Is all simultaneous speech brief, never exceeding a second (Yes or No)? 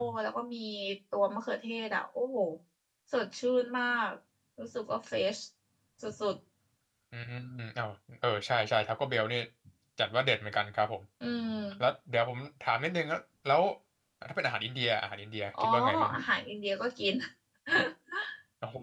Yes